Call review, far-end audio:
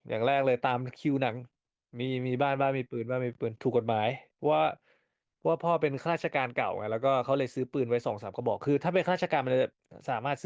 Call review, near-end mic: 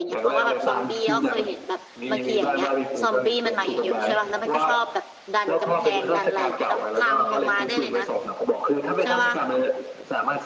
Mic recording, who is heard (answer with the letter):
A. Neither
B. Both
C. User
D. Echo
B